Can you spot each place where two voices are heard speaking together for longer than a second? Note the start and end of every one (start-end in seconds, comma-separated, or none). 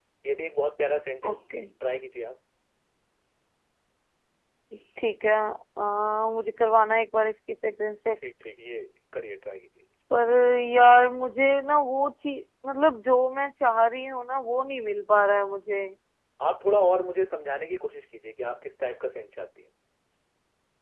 none